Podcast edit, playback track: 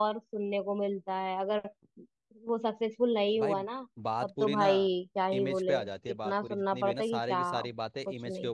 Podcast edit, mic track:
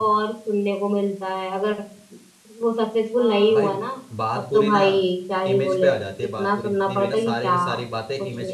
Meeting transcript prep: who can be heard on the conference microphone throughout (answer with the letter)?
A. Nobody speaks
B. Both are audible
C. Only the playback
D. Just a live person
B